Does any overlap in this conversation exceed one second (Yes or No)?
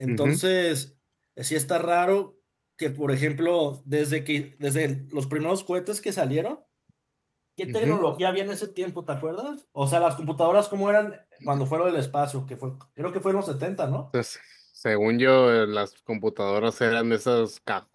No